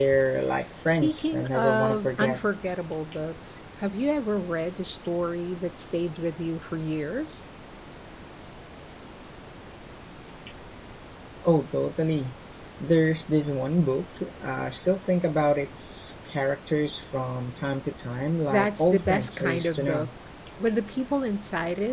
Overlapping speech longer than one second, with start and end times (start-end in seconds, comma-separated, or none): 0.8-2.4, 18.5-20.1